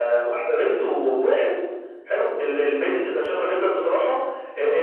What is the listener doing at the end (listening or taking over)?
listening